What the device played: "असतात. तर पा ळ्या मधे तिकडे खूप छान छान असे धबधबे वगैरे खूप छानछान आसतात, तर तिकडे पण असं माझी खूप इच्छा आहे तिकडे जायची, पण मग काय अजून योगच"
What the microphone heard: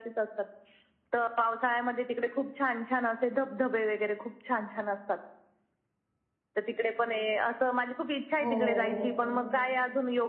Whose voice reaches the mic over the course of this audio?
both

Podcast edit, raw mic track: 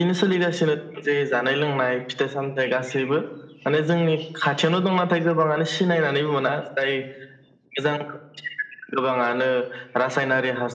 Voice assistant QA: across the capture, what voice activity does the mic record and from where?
echo only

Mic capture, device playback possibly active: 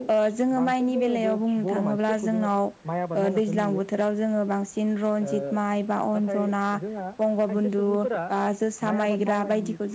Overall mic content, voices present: echo only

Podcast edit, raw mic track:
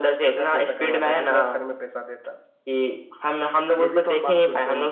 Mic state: echo only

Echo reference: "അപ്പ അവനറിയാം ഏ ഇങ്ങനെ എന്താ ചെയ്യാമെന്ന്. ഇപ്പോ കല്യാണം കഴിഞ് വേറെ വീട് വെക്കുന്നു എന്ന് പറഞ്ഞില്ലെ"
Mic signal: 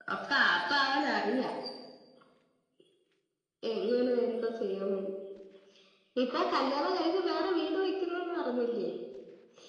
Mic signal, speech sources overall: echo only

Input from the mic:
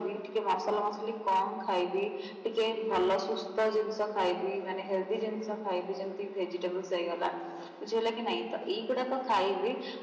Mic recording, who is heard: echo only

